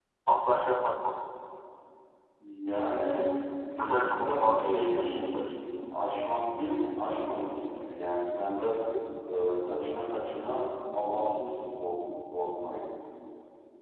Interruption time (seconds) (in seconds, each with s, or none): 3.8 s